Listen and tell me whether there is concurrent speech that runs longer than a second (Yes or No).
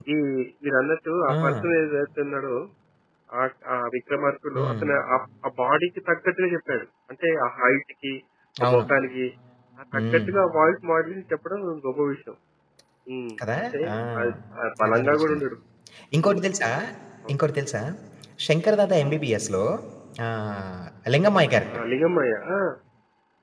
No